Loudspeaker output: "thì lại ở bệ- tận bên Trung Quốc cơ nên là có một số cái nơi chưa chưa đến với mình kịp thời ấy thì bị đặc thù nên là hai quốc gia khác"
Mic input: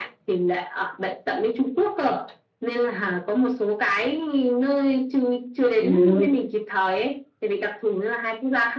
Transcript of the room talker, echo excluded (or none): Ừ,